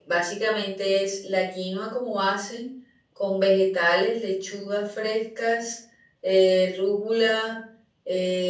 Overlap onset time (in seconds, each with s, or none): none